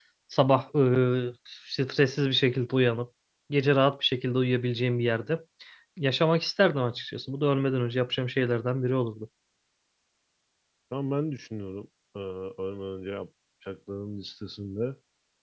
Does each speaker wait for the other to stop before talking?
Yes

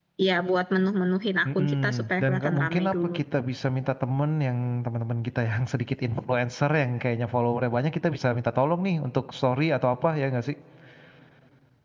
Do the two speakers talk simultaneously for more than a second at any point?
Yes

